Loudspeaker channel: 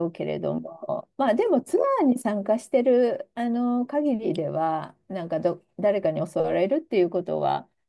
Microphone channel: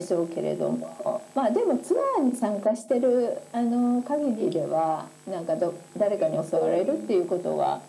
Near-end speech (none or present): present